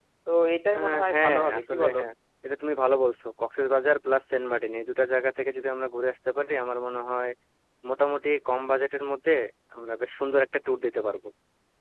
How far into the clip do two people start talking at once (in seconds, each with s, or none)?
0.8 s